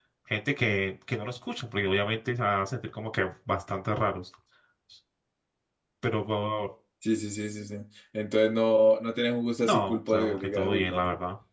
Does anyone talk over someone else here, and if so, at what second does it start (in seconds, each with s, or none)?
9.6 s